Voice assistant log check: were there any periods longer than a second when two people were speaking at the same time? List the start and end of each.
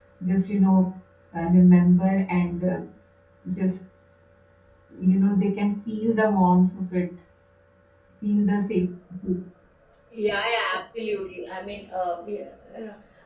none

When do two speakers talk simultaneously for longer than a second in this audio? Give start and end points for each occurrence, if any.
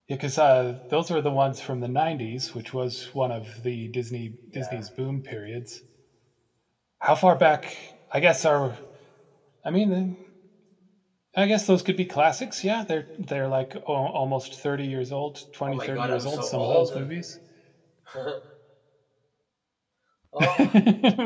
15.7-17.1

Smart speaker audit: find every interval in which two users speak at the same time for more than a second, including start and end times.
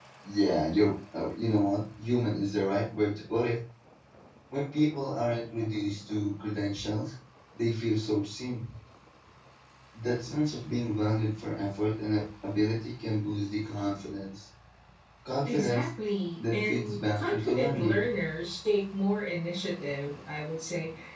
16.4-18.1

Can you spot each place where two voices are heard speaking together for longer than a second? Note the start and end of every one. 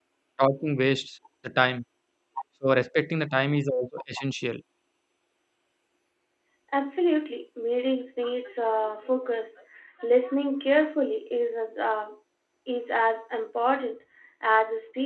none

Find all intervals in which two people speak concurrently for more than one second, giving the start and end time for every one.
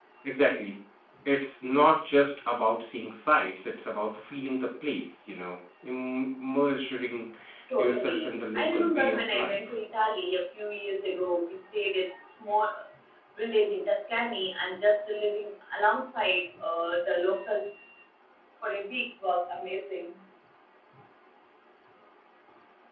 7.8-9.6

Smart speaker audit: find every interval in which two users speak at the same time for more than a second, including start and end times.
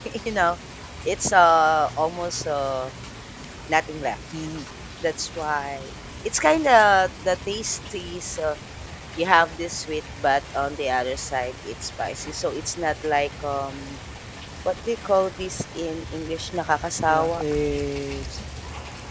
none

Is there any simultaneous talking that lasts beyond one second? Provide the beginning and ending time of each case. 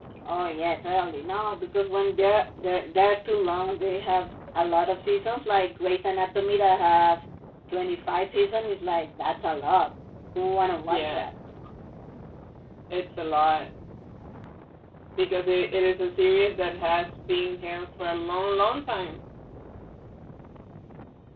none

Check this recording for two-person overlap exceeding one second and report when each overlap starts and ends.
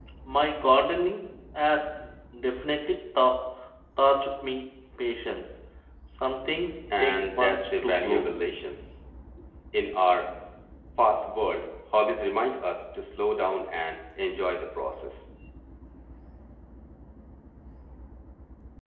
7.0-8.3

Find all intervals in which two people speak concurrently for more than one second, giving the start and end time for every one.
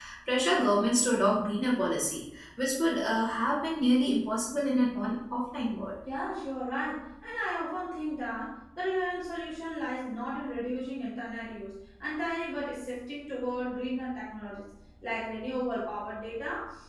none

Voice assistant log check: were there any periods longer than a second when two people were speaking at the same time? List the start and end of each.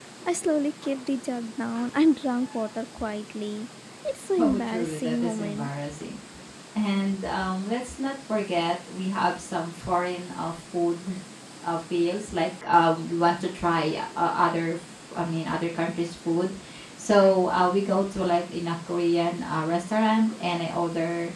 4.4-5.7

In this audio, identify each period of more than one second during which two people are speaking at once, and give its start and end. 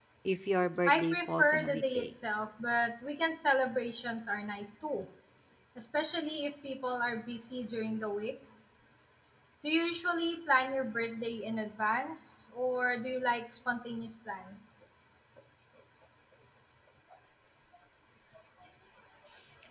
0.8-2.1

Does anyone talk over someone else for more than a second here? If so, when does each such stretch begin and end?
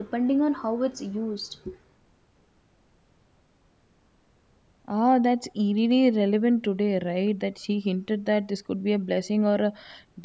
none

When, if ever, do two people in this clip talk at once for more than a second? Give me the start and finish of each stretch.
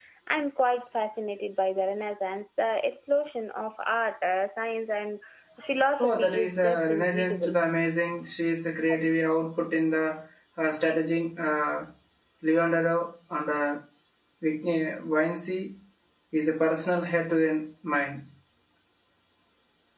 6.0-7.6

